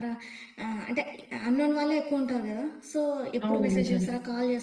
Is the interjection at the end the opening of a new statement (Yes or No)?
No